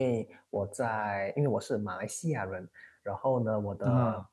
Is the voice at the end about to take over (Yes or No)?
No